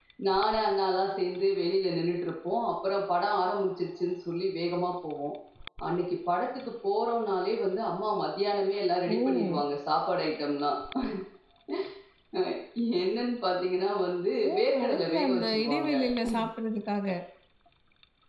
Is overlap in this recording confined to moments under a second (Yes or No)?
No